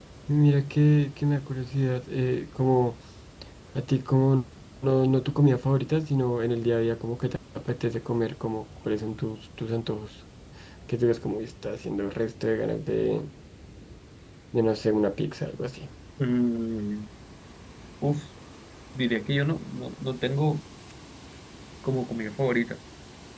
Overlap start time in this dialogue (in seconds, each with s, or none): none